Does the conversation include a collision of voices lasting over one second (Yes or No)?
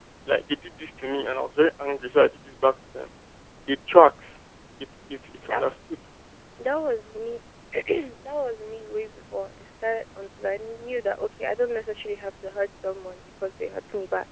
No